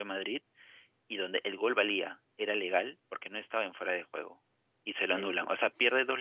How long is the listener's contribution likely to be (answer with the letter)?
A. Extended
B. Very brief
B